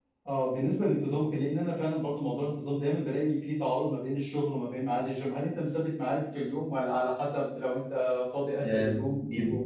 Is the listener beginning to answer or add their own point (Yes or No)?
Yes